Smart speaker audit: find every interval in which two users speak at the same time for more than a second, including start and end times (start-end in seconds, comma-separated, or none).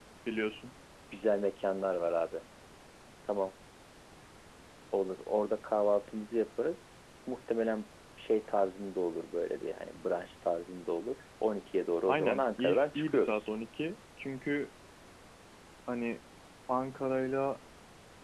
12.1-13.4